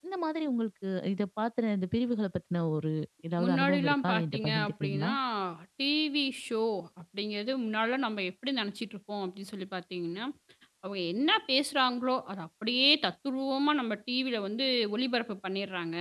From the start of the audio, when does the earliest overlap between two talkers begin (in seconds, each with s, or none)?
3.4 s